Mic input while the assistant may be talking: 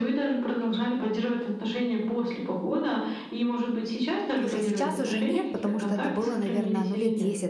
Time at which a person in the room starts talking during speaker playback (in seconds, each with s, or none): 4.4 s